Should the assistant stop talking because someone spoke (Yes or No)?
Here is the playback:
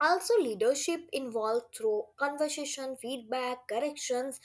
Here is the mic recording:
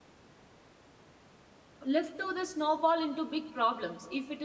Yes